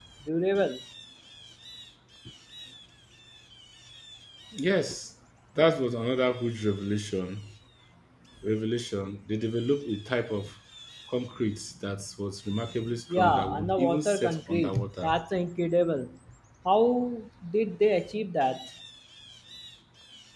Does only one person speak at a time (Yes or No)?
No